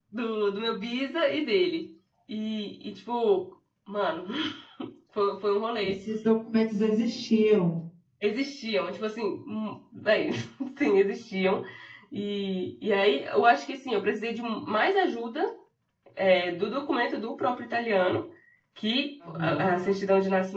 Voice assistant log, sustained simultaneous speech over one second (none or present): none